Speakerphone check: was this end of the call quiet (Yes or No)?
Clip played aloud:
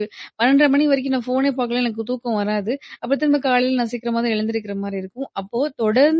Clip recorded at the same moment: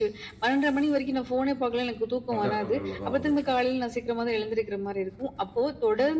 No